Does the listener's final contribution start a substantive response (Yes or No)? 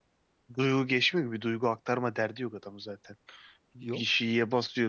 No